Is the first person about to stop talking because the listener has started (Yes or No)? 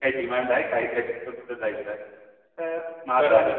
Yes